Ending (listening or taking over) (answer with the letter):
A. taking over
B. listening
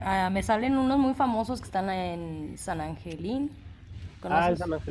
A